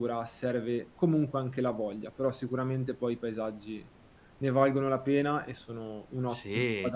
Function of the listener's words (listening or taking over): taking over